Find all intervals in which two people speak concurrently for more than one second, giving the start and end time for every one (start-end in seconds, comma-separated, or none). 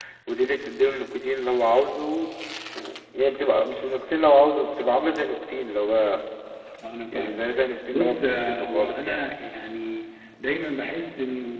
7.9-9.2